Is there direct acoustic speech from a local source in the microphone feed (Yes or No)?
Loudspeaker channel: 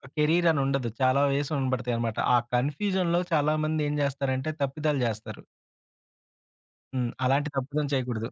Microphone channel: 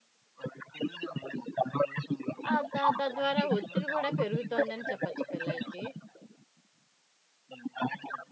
Yes